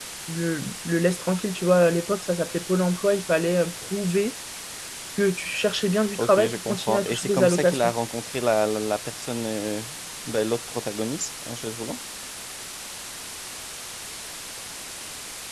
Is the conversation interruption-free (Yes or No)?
No